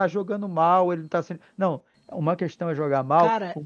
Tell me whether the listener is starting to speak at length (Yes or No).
Yes